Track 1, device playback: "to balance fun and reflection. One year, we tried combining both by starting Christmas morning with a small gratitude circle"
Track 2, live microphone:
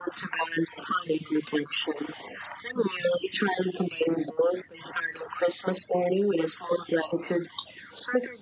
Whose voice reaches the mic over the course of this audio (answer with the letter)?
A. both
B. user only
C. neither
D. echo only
D